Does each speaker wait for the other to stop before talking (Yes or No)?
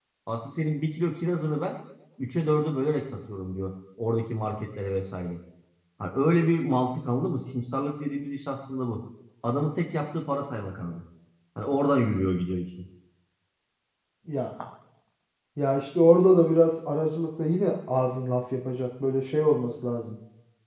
Yes